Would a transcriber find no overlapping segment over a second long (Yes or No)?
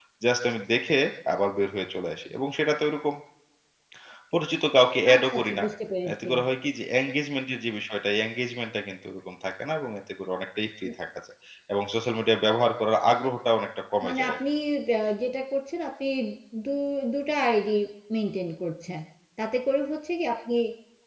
Yes